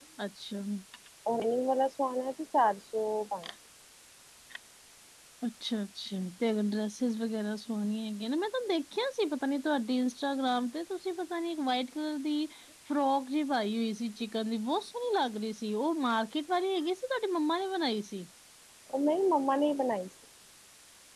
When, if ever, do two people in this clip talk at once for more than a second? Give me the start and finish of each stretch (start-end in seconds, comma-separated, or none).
none